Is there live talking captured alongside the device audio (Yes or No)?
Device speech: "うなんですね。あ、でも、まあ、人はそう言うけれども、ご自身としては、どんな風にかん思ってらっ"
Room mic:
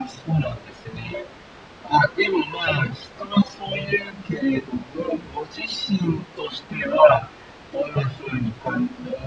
No